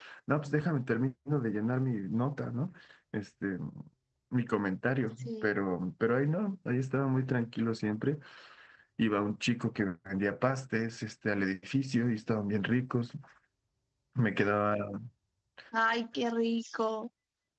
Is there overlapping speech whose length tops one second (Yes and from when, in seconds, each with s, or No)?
No